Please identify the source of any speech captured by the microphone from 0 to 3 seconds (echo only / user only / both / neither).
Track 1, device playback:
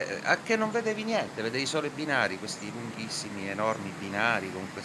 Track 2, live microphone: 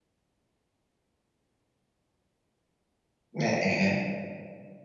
neither